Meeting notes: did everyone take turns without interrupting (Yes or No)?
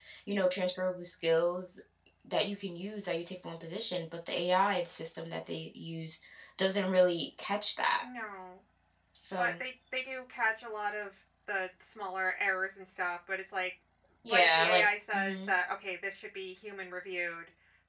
No